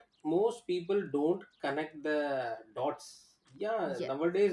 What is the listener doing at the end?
listening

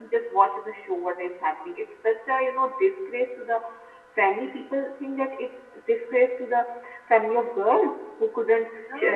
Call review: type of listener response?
listening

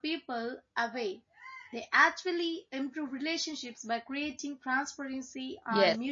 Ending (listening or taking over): taking over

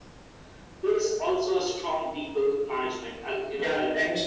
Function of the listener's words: taking over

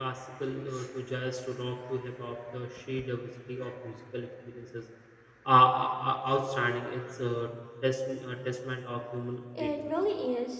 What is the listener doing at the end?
taking over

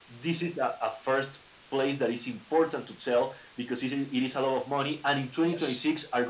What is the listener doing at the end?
listening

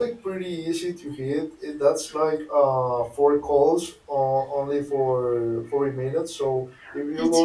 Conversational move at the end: listening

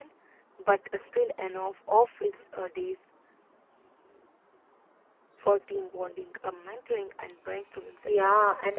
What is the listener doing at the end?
taking over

